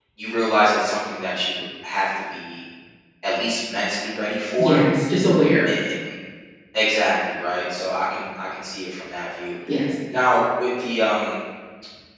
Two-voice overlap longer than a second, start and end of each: none

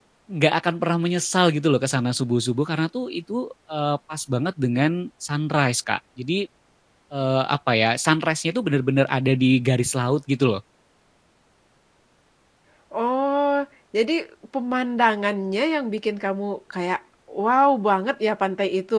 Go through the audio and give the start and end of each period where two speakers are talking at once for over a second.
none

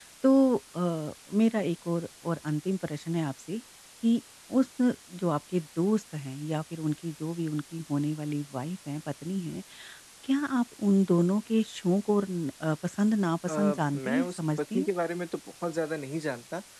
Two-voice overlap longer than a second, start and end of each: 13.5-14.9

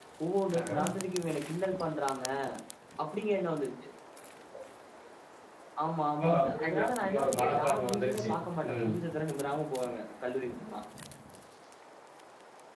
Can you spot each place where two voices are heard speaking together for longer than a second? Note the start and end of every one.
6.2-8.3

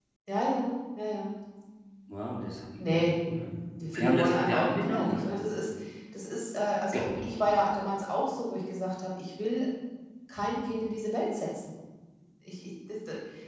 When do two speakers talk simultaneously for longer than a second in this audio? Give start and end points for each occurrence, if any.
4.0-5.3

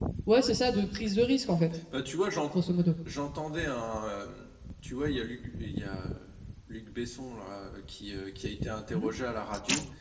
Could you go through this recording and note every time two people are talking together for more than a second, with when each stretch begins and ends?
none

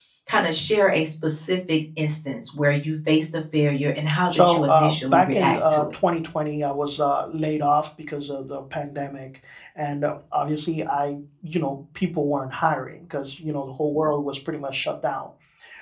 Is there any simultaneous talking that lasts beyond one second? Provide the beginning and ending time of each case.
4.3-5.9

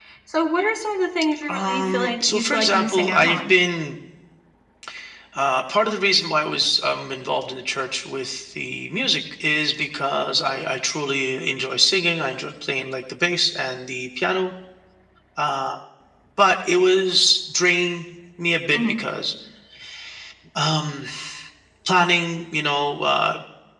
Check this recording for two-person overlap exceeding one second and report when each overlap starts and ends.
1.5-3.5

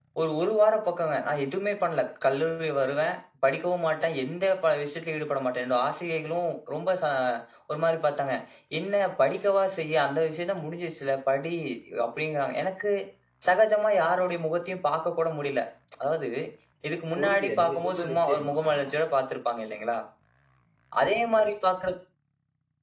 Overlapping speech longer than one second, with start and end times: 17.2-18.9

